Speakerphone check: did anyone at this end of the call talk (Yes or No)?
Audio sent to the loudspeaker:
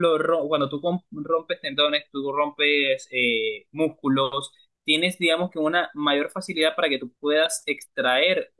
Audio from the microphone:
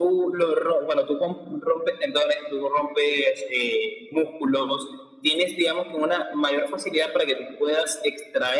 No